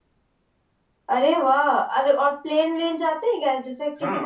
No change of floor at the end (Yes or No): No